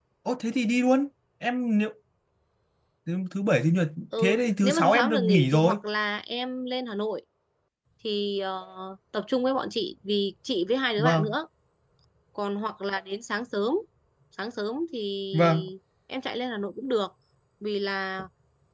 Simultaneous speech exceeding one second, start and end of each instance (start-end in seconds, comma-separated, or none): 4.2-5.8